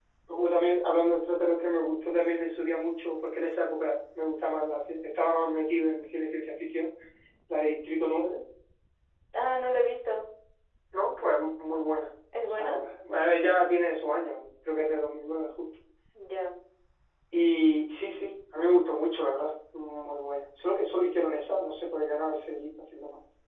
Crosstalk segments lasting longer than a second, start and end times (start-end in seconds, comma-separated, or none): none